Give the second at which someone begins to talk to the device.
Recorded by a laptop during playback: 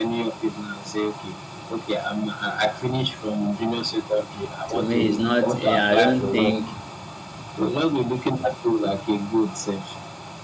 4.7 s

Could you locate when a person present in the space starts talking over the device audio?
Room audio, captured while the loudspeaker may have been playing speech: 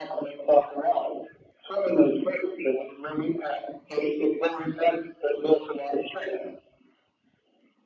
none

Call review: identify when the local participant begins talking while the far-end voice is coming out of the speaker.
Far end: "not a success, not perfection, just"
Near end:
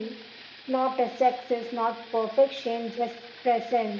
none

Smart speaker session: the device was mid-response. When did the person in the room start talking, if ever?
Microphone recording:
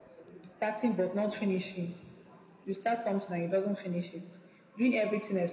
none

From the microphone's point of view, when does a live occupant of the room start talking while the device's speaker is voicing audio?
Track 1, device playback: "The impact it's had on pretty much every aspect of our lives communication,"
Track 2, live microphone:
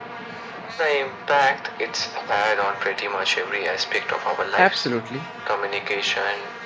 4.5 s

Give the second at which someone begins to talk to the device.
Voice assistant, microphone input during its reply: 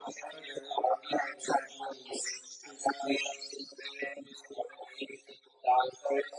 none

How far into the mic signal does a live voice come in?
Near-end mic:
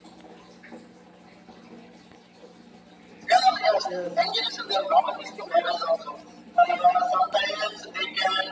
3.8 s

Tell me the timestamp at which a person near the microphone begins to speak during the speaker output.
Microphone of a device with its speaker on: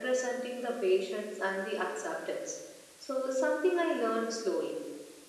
none

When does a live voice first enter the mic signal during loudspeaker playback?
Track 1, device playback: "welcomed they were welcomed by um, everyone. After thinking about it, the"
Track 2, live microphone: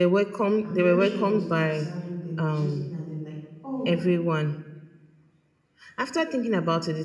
0.6 s

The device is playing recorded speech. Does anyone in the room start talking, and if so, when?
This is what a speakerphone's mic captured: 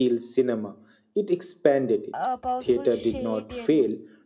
2.1 s

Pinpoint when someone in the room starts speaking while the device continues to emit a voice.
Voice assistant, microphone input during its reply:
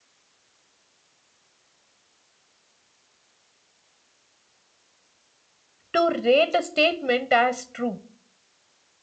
5.9 s

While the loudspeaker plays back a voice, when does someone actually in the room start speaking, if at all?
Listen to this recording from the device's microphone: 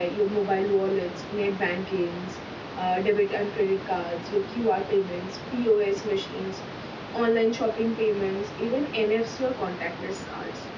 none

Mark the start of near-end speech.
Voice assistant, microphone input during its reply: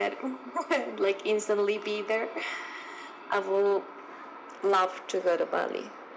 none

